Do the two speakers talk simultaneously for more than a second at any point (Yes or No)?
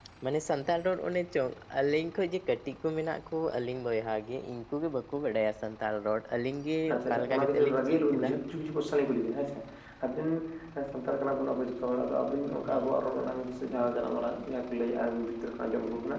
Yes